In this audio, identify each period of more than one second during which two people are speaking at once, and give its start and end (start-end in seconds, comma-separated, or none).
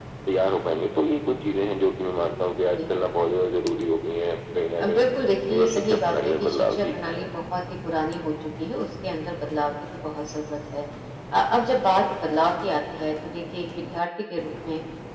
5.6-6.9